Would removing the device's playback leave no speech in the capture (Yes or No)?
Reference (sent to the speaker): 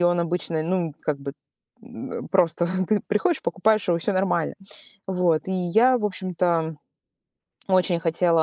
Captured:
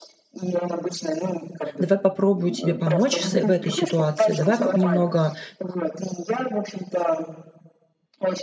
No